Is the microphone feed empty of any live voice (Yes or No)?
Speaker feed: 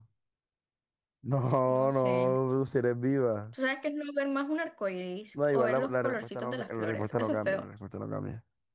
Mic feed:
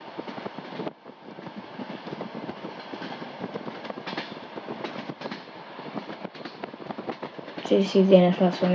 No